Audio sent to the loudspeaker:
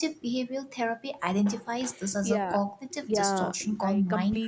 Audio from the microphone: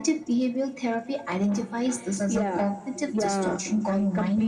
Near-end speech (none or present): none